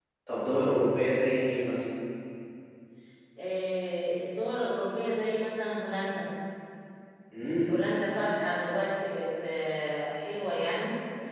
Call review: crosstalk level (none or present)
none